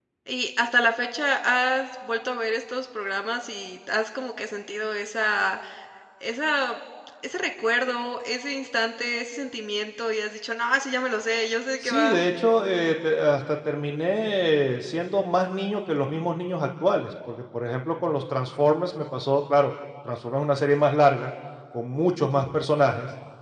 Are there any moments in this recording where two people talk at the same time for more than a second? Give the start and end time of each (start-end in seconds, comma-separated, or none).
none